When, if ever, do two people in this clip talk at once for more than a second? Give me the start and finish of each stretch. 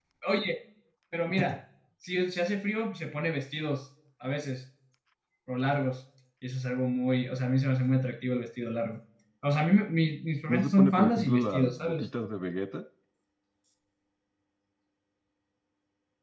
10.5-12.0

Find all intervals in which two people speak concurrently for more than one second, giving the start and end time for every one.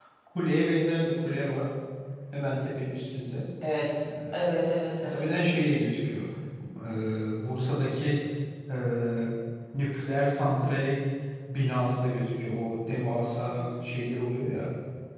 none

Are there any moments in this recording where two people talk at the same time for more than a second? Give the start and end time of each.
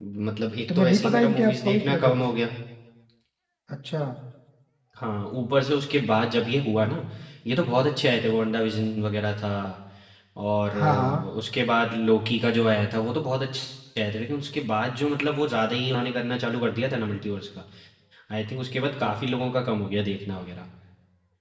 0.8-2.1

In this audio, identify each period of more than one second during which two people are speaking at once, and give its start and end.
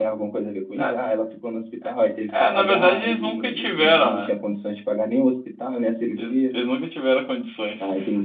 2.5-4.3

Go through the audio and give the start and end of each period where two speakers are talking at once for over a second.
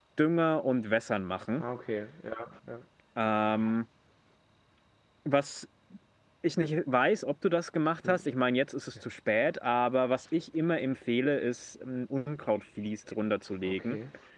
none

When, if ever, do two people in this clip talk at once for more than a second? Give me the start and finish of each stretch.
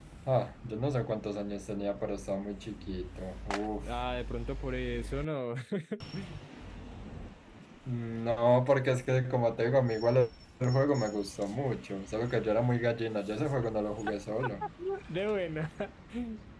none

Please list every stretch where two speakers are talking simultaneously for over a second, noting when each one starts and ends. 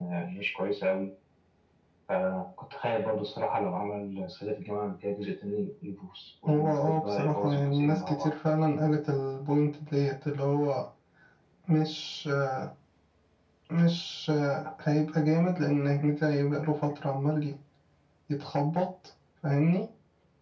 6.5-8.3

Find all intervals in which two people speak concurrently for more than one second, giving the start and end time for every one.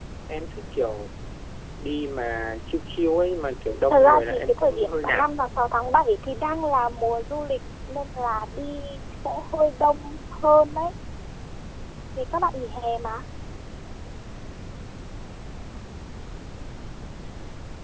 3.9-5.3

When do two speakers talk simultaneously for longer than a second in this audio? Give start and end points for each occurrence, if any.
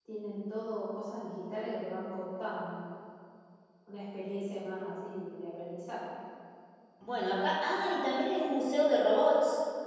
none

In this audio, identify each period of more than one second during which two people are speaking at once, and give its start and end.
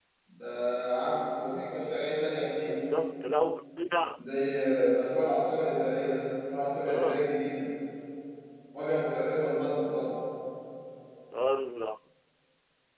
none

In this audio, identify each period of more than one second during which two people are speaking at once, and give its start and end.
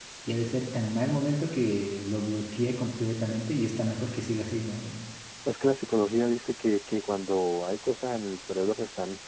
none

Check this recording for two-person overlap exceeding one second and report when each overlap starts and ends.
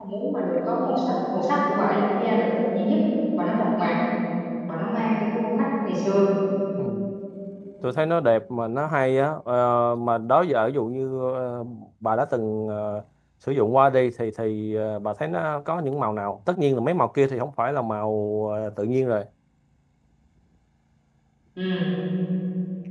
none

